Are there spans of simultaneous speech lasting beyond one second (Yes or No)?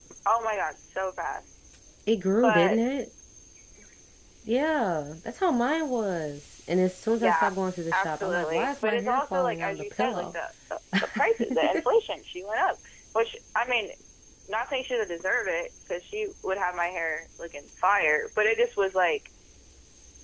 Yes